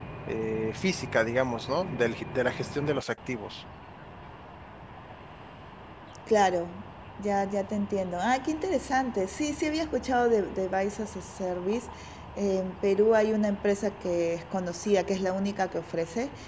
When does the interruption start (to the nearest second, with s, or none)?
none